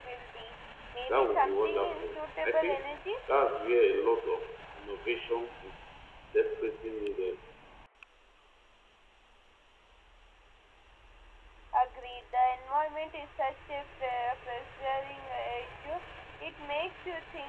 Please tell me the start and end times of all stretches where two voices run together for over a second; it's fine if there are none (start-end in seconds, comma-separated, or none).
1.1-3.0